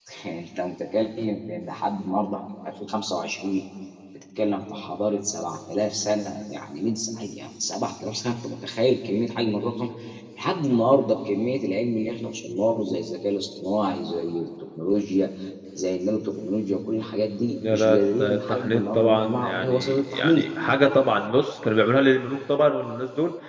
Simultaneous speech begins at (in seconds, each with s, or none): 17.6 s